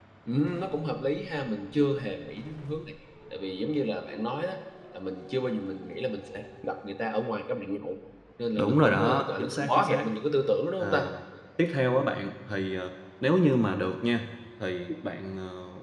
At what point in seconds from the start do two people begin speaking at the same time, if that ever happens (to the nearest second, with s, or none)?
9 s